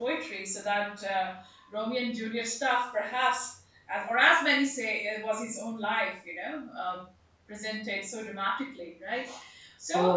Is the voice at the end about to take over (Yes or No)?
Yes